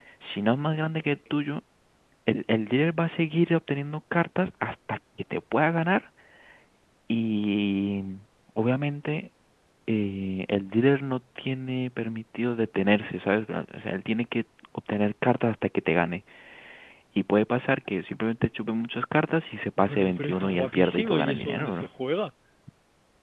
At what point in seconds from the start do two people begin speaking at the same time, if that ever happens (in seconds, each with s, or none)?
19.8 s